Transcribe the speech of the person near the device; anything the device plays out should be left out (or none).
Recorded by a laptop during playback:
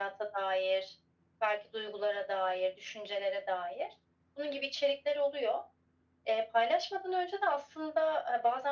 none